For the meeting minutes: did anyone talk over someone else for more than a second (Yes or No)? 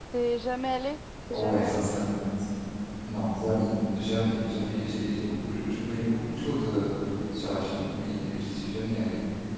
No